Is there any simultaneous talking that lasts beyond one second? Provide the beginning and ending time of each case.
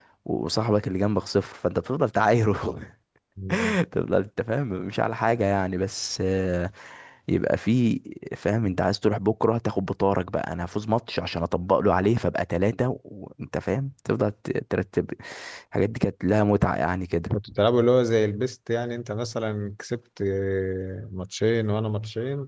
none

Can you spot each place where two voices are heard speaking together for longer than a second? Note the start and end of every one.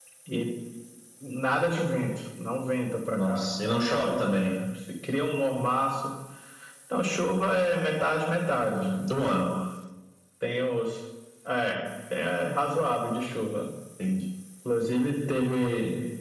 3.1-4.5

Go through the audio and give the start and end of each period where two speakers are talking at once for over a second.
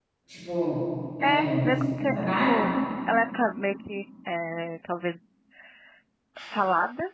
1.2-2.7

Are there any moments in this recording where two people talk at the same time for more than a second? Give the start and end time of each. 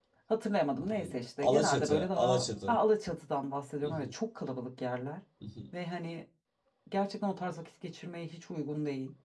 0.8-2.2

